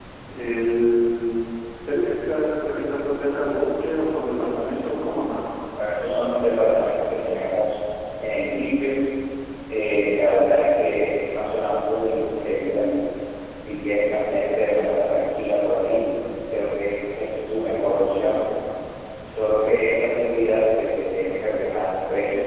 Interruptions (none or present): none